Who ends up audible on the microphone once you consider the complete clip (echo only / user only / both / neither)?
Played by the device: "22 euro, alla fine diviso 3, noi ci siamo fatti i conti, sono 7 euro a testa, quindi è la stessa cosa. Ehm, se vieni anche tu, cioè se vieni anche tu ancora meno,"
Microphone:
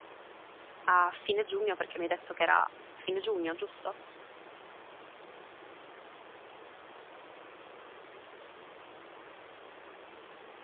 user only